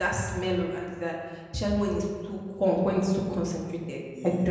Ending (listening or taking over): taking over